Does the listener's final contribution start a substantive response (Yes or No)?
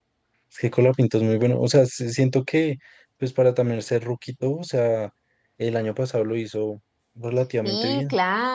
Yes